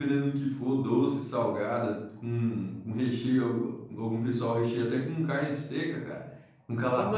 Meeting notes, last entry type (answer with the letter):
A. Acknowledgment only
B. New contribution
B